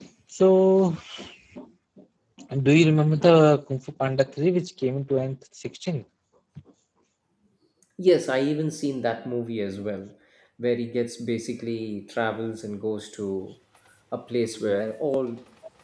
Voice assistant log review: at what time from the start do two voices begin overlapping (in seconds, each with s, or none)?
none